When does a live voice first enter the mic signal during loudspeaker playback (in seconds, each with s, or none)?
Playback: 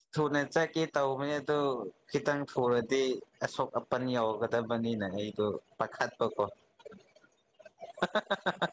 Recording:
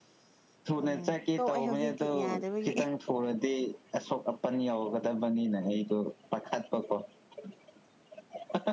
0.8 s